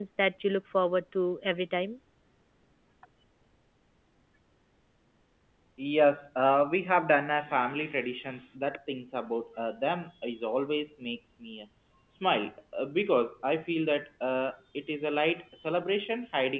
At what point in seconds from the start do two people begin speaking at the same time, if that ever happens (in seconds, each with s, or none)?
none